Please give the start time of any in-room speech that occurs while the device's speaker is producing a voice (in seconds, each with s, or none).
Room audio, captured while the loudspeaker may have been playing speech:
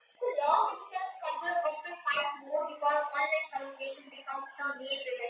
none